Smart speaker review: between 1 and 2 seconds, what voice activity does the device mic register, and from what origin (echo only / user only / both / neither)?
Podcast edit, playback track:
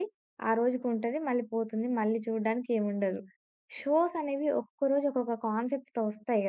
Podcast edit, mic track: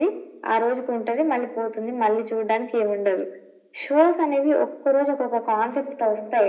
echo only